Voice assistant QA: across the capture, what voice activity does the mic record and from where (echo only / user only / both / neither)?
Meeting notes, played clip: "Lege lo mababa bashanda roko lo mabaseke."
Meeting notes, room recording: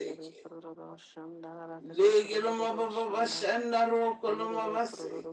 both